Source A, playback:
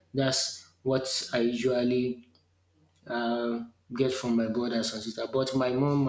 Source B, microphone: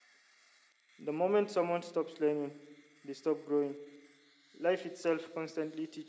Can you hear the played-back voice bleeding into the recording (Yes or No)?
No